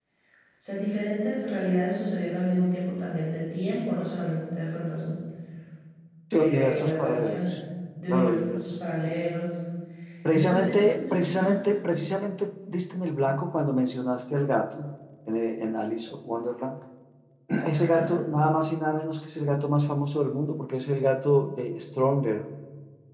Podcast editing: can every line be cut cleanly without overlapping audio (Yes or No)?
No